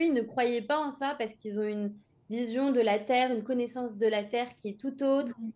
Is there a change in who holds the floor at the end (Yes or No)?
No